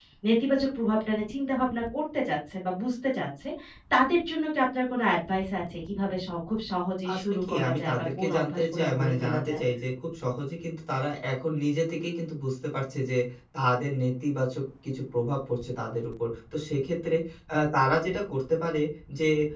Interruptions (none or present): present